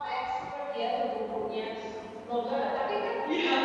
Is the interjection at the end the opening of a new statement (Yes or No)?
No